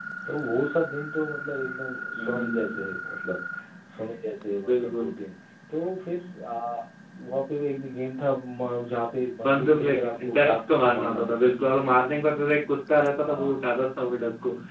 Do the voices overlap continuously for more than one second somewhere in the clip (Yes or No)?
Yes